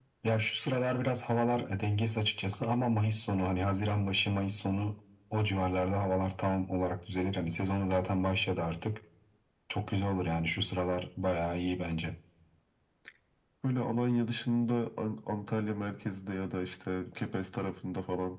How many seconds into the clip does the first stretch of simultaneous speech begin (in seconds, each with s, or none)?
none